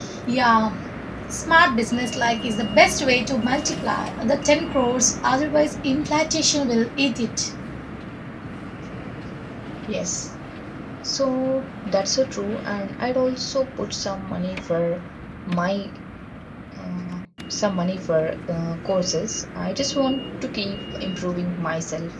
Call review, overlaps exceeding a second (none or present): none